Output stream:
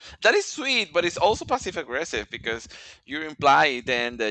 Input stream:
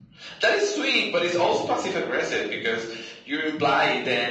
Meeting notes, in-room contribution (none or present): none